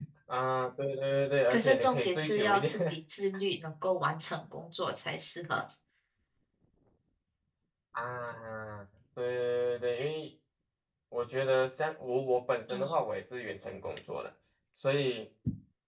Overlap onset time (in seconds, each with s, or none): 1.5 s